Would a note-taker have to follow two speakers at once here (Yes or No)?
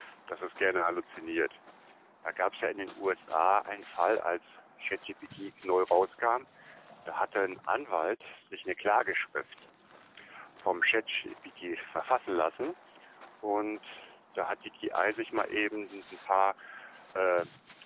No